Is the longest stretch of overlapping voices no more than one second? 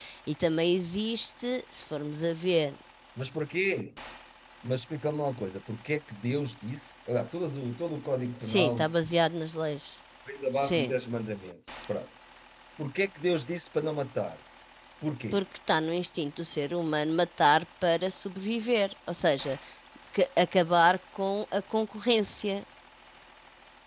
Yes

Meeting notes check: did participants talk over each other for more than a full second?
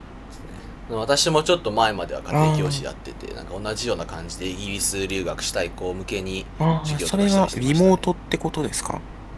Yes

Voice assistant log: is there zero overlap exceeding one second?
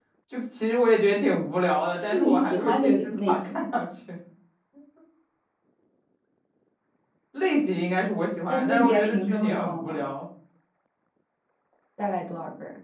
No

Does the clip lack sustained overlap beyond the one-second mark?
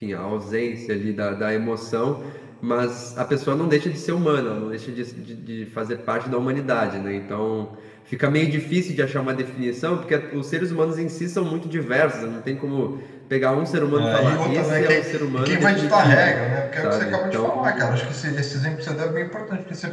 No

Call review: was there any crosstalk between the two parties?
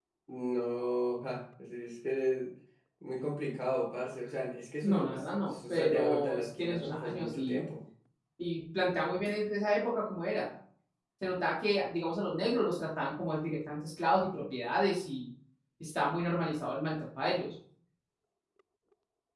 Yes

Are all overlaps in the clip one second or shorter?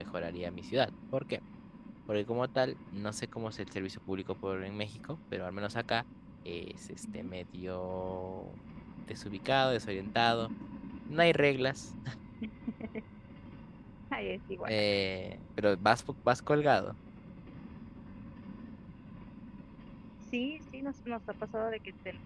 Yes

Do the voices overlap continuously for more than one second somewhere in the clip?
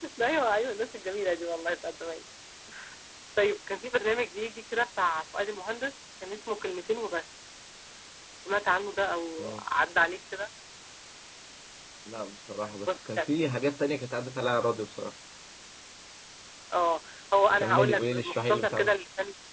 Yes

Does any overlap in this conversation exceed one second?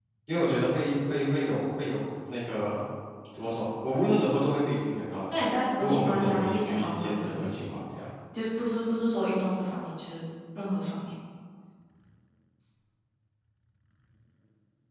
Yes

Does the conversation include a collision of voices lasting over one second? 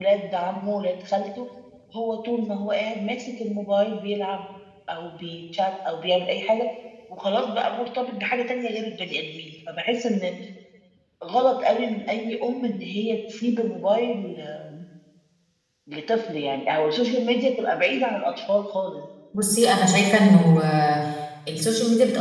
No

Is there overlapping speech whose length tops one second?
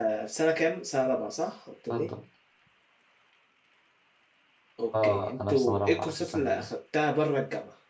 Yes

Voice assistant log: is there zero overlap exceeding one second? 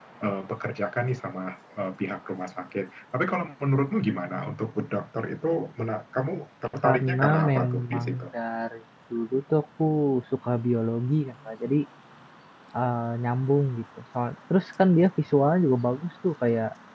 No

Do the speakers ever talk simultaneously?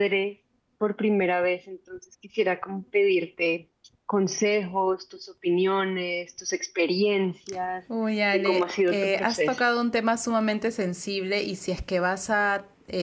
Yes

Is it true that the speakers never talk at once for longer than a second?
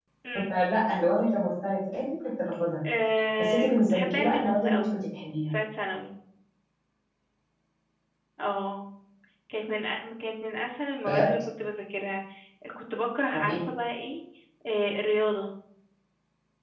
No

